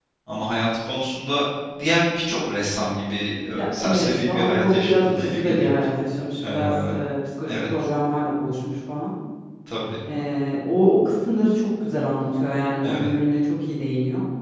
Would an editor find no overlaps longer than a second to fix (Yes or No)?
No